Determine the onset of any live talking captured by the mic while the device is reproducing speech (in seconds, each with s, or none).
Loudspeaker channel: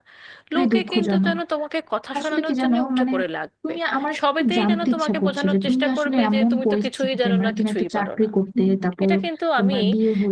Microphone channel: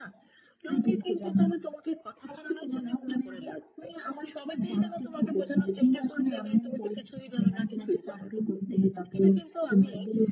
none